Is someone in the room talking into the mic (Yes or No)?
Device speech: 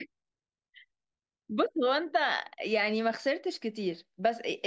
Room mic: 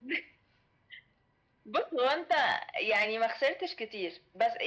No